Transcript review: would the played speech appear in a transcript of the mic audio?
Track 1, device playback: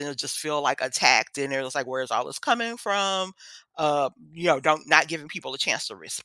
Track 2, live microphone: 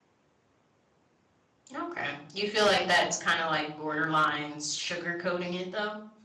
No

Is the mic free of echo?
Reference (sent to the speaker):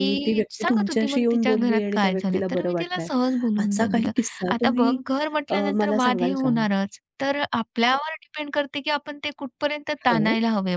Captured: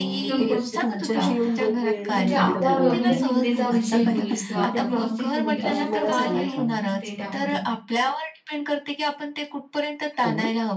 No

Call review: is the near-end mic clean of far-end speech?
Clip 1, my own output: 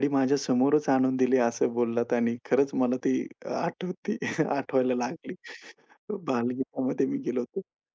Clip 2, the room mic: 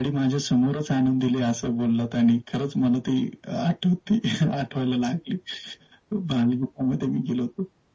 No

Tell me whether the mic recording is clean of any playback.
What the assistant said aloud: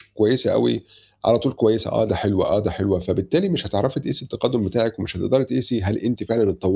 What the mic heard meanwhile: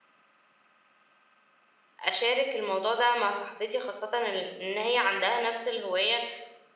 Yes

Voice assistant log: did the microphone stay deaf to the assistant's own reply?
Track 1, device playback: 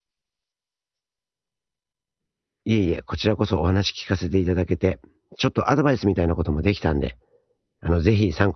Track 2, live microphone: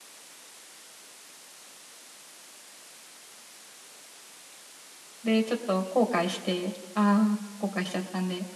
Yes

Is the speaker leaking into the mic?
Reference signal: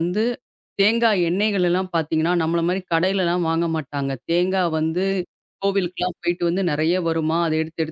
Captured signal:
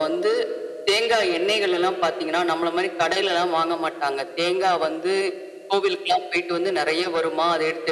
Yes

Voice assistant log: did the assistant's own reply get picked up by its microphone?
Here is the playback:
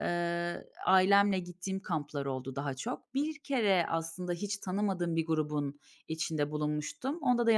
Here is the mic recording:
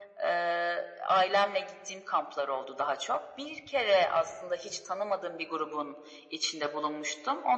Yes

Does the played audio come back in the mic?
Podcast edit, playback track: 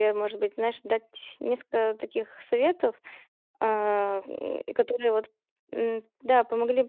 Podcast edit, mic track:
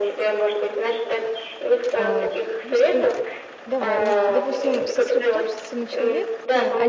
Yes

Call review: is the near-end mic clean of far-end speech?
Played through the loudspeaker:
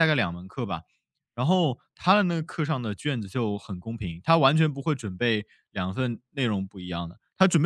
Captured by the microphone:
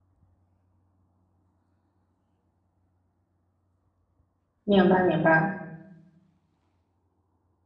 Yes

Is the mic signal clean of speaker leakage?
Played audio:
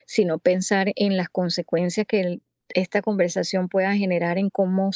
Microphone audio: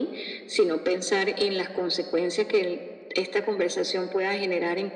No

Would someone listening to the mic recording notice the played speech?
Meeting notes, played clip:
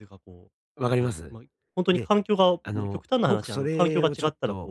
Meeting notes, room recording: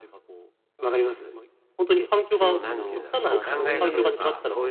Yes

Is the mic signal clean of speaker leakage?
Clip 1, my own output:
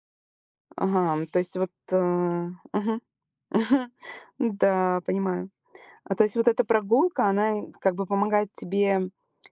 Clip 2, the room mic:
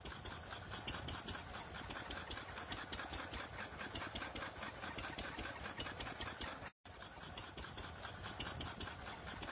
Yes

